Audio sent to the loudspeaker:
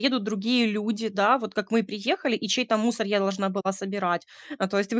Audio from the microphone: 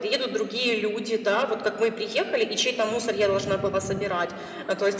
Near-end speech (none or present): none